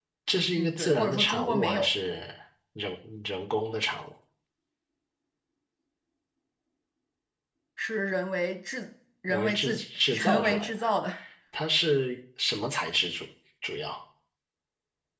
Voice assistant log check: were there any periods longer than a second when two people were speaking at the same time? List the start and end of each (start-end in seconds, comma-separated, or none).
0.6-1.9, 9.3-10.7